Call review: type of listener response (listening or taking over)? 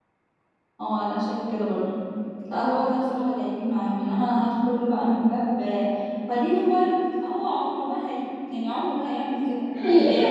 taking over